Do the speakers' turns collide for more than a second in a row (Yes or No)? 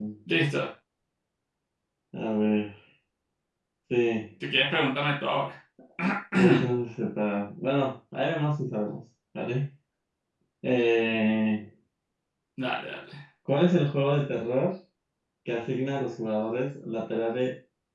No